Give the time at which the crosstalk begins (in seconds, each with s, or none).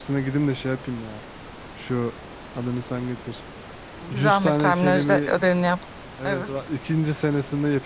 4.1 s